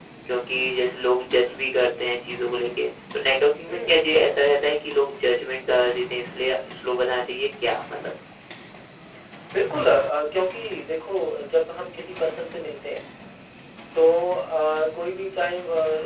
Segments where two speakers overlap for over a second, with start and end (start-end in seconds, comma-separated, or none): none